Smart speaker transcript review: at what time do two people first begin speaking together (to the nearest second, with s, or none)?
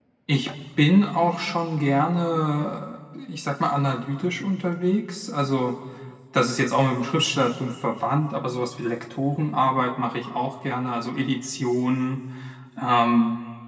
none